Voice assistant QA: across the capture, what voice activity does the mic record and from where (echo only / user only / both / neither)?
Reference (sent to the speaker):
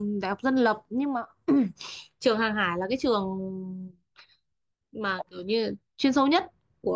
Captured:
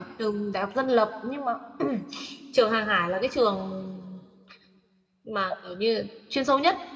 echo only